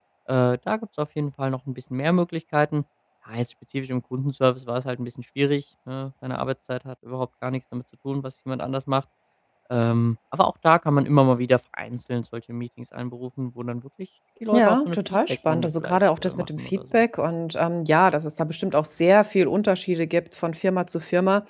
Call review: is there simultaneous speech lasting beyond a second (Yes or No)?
Yes